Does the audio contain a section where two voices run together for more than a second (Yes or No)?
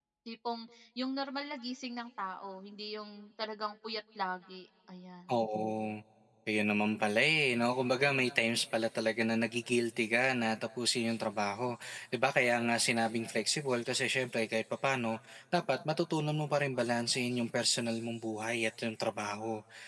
No